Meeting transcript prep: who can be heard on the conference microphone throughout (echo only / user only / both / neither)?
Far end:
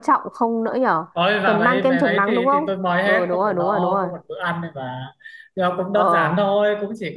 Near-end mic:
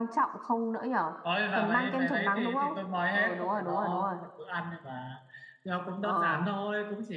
echo only